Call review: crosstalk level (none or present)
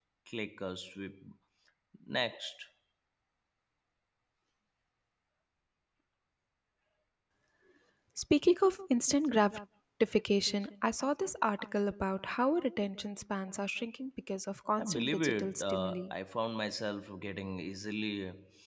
present